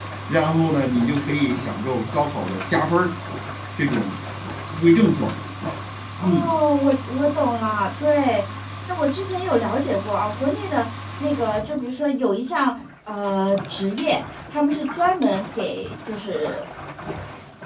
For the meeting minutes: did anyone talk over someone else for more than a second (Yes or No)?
No